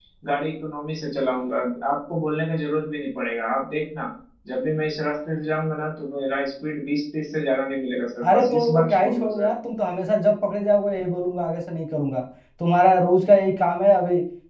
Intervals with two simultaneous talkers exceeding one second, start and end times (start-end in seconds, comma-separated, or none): 8.2-9.5